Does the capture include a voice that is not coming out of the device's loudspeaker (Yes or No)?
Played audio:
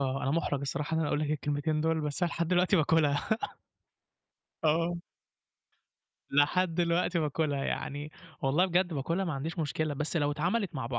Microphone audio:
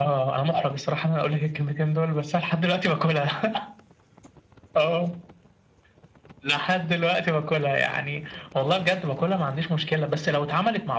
No